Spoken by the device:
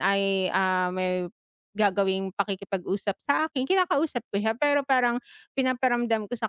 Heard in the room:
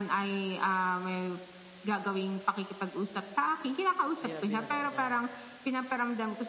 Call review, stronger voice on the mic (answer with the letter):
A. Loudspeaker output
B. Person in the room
A